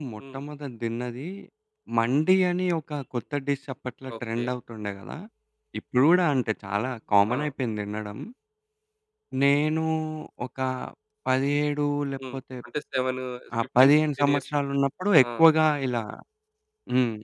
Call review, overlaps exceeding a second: none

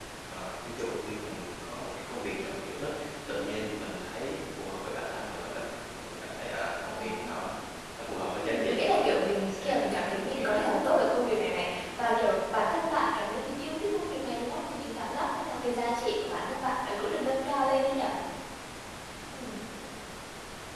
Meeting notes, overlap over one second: present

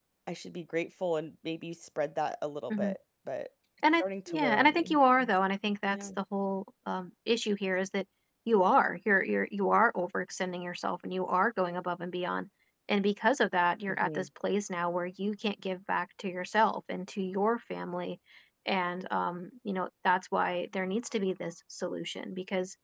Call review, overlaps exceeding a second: present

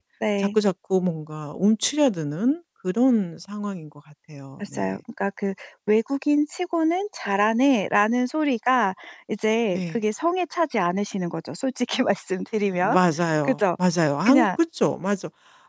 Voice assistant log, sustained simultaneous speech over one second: none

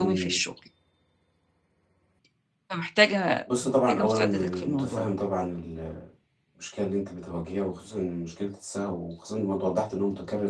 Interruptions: present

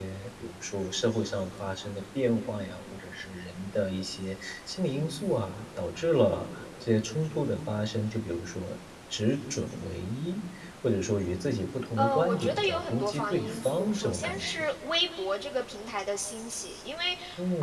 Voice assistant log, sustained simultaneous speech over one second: present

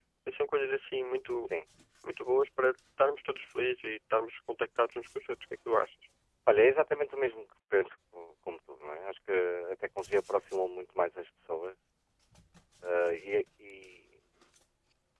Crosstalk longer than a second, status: none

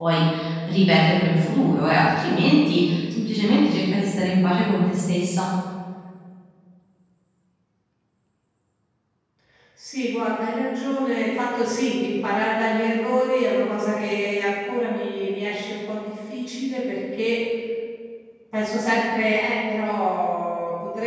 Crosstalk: none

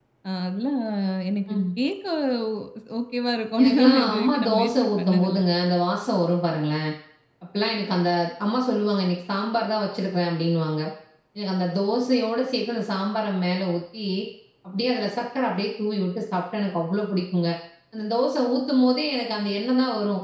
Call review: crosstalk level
present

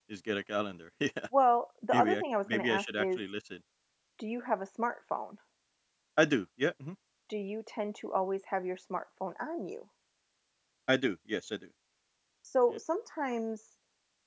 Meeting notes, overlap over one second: present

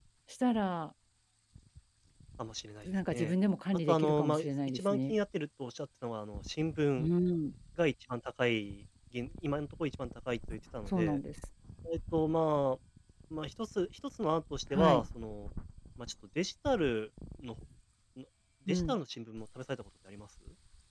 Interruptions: present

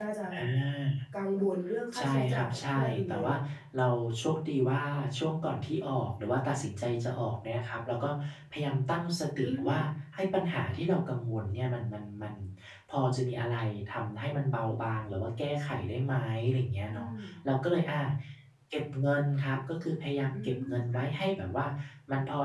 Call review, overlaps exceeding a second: present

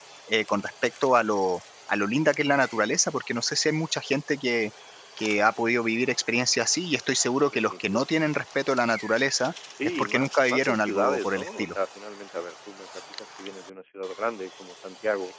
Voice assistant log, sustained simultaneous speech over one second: present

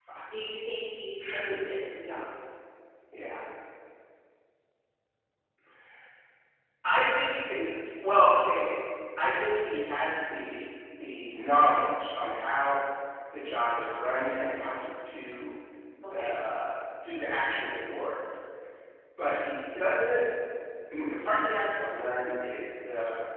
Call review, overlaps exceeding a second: none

